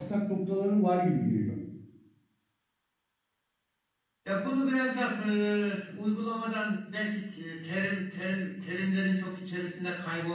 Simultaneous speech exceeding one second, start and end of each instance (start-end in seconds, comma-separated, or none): none